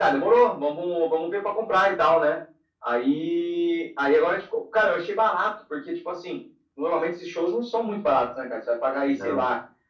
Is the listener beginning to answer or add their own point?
No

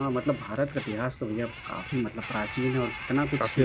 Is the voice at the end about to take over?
No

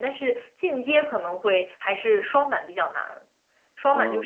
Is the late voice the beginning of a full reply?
No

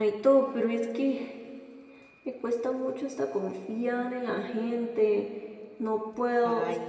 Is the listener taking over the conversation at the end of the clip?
No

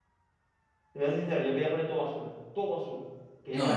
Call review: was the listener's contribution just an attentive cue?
Yes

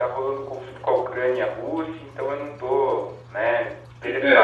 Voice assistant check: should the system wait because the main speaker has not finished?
No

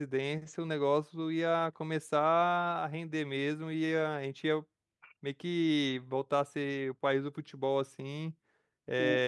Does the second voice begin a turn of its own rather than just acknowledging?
No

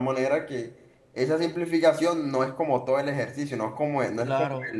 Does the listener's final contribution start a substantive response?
Yes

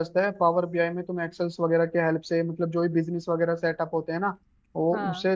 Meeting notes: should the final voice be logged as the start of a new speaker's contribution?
No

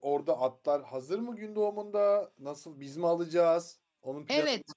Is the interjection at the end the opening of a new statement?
Yes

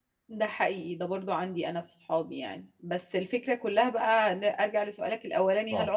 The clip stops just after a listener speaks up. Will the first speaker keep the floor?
Yes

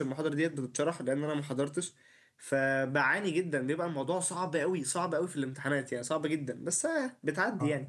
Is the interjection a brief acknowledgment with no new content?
No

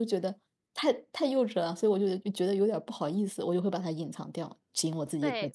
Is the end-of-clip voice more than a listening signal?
Yes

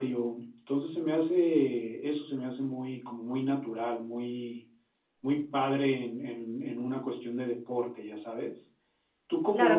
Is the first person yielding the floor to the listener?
Yes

